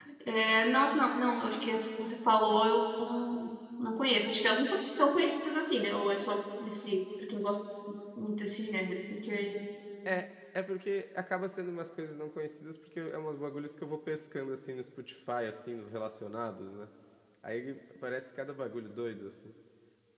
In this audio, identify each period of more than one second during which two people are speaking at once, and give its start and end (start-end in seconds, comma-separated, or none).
none